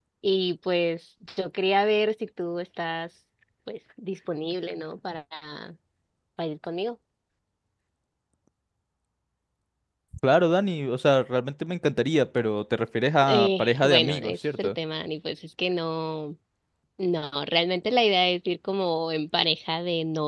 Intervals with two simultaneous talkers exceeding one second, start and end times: 13.3-14.7

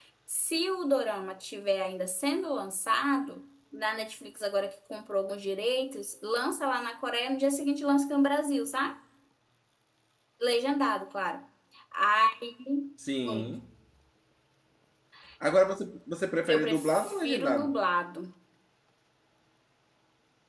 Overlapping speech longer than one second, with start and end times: 16.5-17.8

